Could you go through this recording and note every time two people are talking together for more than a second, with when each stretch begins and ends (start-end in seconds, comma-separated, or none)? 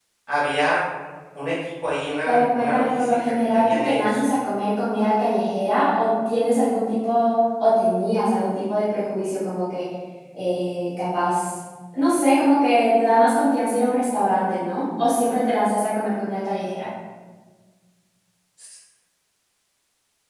2.2-4.2